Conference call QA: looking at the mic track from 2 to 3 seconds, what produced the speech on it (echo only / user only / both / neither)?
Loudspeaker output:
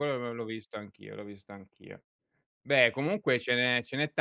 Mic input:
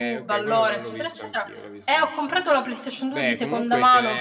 both